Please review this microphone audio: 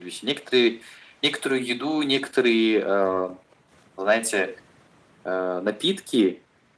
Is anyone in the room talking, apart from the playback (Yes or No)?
No